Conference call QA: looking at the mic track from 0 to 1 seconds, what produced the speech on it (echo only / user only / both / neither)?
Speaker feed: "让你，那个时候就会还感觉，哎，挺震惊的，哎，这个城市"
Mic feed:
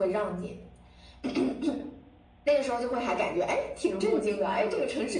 echo only